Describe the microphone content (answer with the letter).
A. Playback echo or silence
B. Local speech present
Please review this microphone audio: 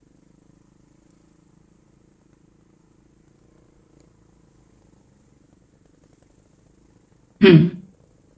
B